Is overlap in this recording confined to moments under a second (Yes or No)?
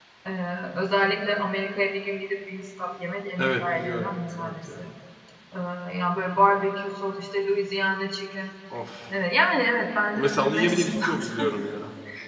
No